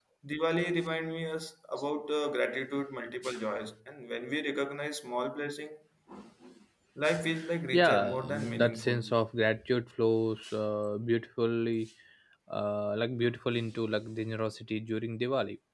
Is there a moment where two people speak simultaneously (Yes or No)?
Yes